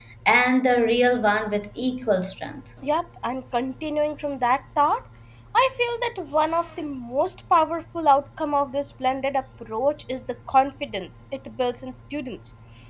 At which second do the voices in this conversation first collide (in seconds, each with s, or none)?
none